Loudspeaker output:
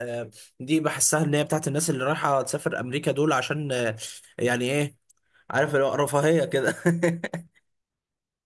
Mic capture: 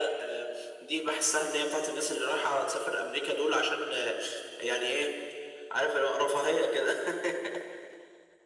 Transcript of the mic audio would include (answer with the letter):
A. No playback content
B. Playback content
B